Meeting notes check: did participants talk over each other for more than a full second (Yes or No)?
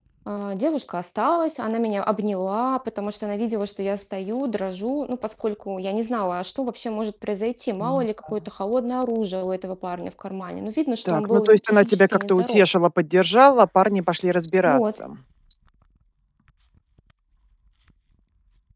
Yes